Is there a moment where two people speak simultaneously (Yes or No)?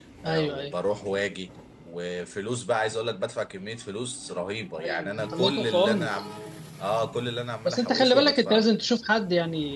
Yes